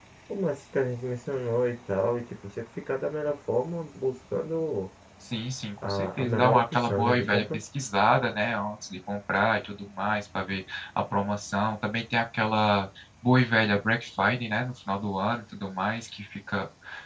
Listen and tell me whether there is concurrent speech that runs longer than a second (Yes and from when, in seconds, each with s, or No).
Yes, from 5.8 s